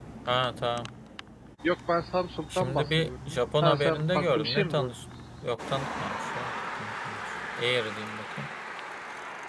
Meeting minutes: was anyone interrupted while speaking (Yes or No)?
Yes